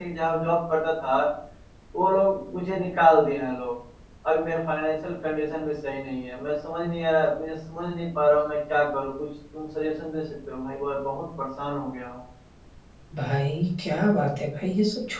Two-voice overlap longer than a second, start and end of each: none

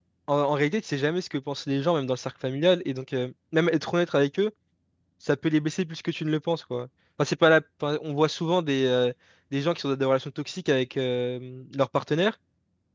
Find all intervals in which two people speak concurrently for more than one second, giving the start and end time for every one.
none

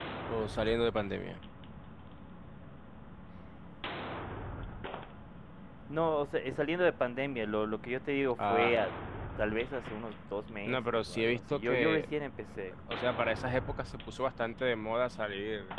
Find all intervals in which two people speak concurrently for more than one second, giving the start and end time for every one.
10.7-12.1

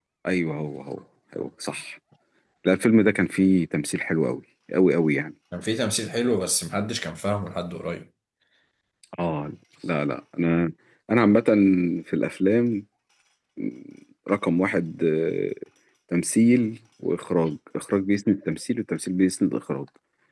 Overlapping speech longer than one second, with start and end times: none

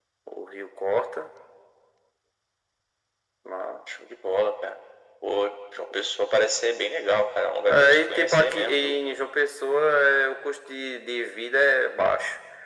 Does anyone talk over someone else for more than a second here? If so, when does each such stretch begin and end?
7.7-8.9

